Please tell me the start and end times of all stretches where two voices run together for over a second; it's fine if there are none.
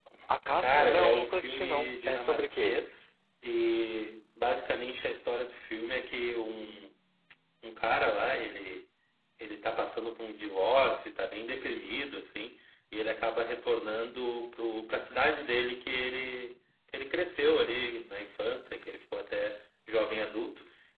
0.6-2.8

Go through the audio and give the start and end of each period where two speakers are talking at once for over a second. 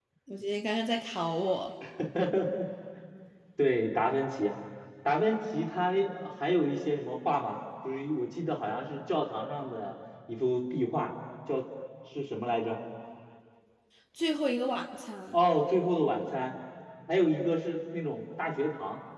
none

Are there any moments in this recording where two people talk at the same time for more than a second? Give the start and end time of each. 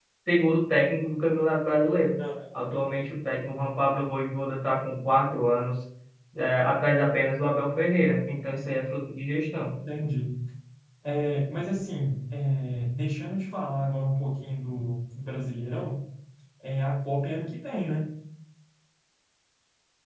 none

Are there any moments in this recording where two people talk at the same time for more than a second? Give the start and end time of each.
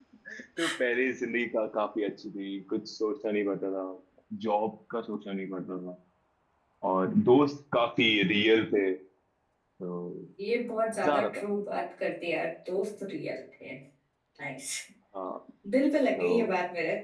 none

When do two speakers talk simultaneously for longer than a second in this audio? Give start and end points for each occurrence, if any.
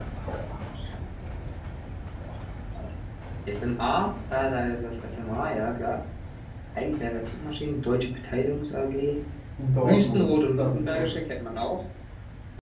9.8-11.2

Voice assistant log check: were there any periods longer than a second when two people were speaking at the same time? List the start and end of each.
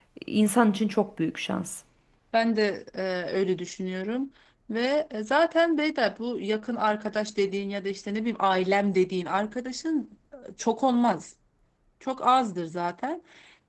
none

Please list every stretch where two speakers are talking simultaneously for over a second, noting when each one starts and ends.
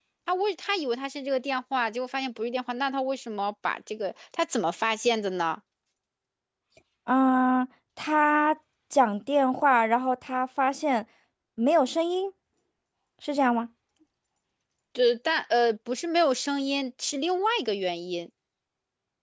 none

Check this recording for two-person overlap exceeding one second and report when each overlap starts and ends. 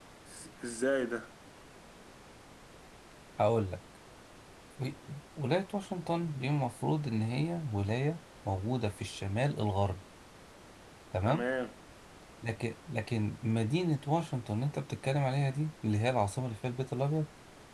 none

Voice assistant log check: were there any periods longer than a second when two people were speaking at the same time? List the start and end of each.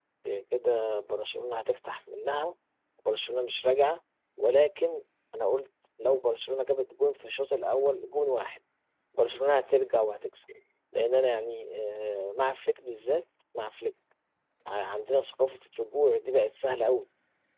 none

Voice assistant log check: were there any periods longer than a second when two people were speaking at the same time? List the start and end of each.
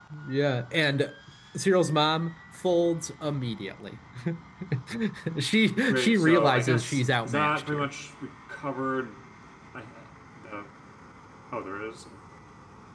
5.9-7.9

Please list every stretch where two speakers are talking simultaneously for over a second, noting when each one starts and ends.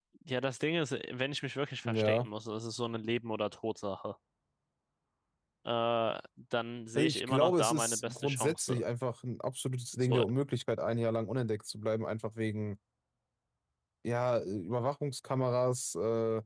7.0-8.8

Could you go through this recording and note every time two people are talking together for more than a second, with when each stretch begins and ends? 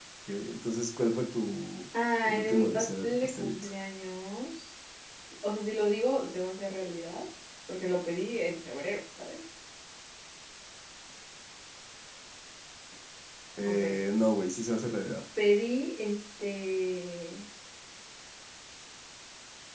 2.2-3.5

